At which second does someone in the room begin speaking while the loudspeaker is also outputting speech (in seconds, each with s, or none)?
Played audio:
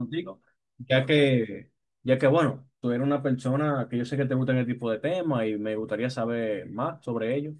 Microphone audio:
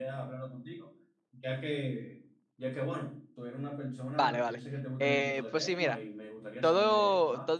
4.2 s